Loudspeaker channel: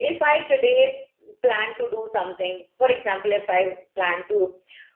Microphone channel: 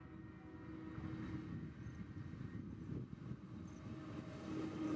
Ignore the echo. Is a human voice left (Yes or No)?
No